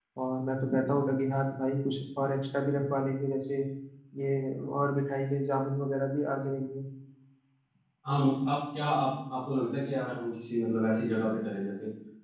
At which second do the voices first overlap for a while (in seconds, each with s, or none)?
none